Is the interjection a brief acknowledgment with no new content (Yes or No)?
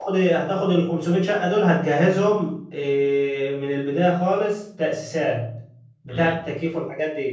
Yes